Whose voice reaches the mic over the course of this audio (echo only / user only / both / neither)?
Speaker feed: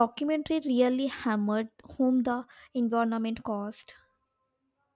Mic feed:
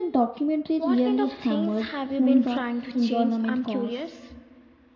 both